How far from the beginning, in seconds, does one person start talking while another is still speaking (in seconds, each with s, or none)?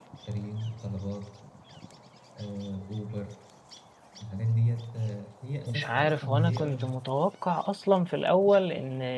5.7 s